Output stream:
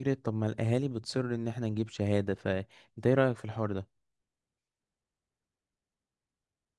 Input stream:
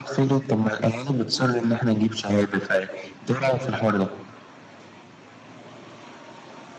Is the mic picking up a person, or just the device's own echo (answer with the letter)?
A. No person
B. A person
A